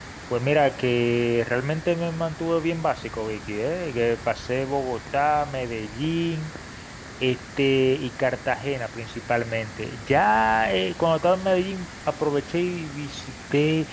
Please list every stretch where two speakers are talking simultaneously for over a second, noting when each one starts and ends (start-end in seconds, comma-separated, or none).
none